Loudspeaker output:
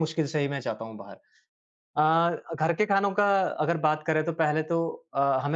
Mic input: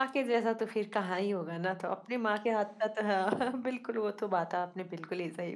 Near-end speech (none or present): present